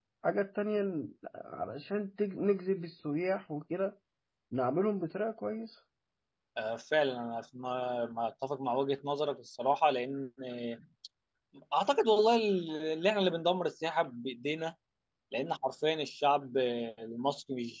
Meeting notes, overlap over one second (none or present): none